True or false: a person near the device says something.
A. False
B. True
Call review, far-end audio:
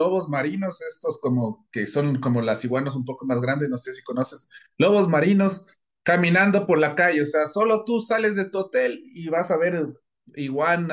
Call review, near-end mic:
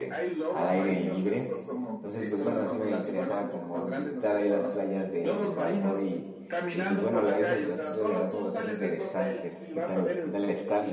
B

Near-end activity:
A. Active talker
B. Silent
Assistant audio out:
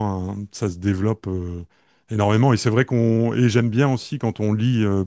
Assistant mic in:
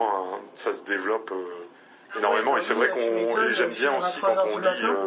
A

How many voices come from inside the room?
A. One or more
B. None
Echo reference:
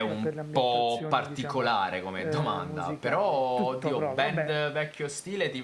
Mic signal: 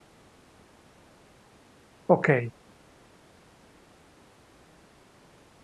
A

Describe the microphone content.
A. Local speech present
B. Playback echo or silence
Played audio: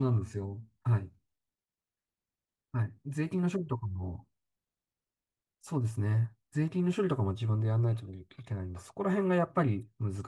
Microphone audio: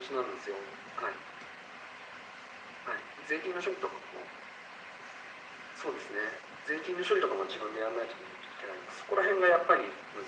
B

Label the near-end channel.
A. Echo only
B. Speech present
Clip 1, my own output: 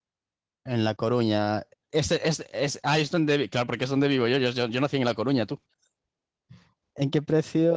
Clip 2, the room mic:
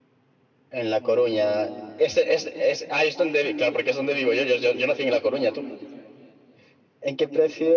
A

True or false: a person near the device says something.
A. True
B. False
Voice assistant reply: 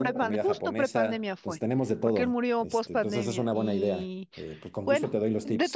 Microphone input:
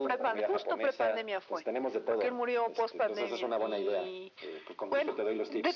B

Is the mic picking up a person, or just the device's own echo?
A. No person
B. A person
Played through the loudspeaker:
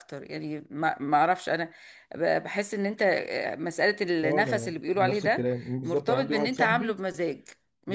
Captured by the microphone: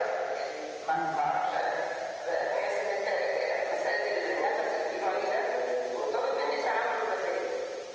B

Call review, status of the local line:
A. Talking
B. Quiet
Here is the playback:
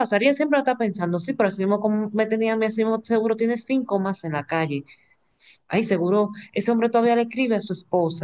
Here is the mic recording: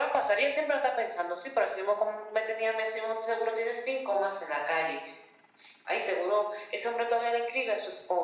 B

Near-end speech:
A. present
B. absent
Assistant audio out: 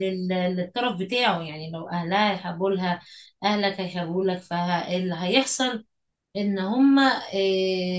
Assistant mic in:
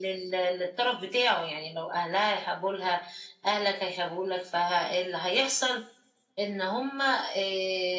B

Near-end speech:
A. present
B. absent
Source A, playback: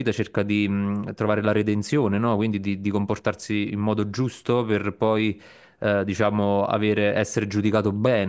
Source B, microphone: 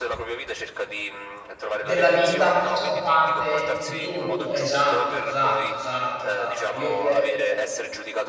A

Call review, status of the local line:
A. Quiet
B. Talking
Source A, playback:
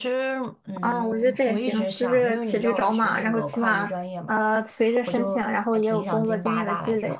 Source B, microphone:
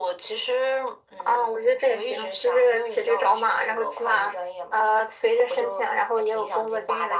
A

